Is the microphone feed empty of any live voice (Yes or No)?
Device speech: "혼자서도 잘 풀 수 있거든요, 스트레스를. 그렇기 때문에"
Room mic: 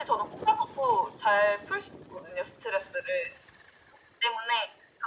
Yes